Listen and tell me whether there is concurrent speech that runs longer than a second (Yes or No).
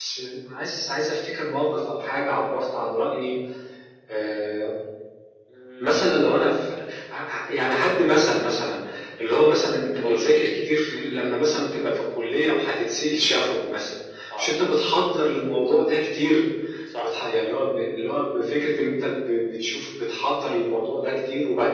No